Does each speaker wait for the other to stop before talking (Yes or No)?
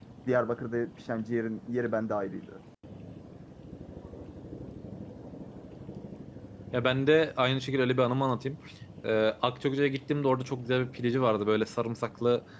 Yes